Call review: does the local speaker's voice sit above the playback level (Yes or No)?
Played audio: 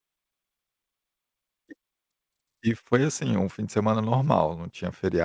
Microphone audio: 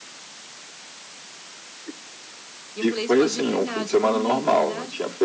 No